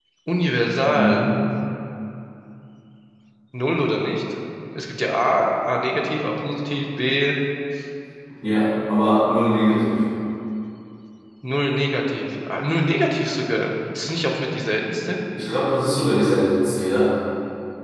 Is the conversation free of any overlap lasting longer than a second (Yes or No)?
Yes